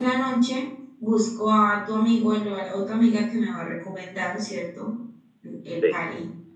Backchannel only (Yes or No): No